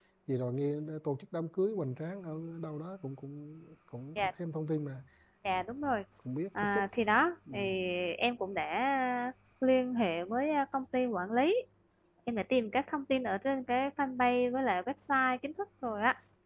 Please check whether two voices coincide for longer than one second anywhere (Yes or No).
No